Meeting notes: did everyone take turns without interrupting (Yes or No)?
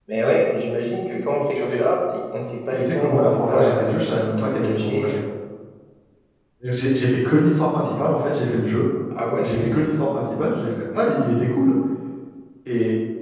No